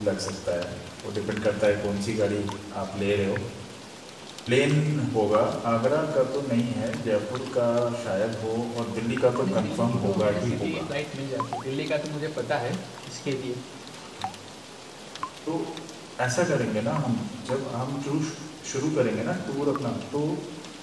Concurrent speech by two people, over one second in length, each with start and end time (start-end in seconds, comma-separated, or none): 9.4-10.8